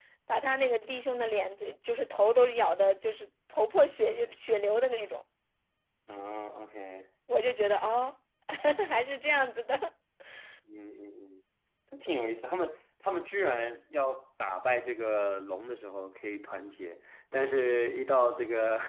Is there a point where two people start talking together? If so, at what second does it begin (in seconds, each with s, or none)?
none